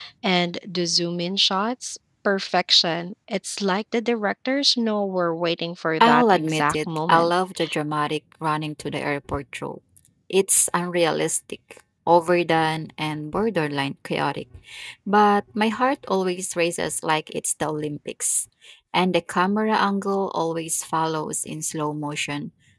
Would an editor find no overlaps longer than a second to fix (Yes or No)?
No